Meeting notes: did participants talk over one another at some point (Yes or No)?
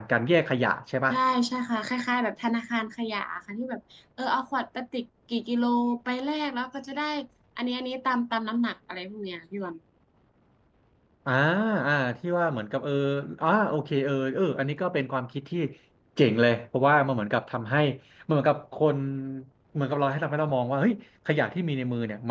No